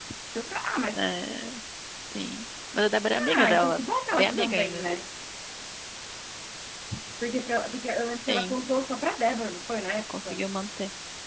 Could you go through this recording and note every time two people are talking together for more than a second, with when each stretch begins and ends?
3.4-4.8

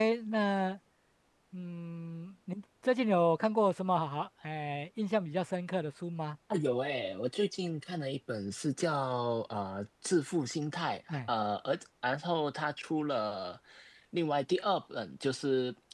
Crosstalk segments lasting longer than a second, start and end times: none

